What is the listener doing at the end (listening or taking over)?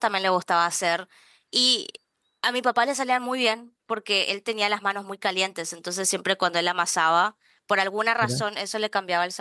listening